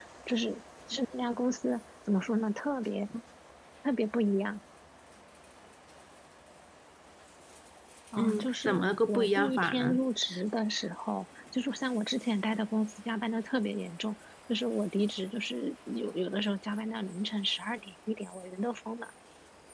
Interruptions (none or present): present